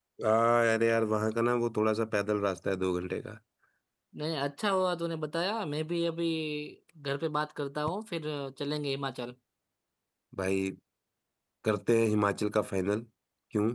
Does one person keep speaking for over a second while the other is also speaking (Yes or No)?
No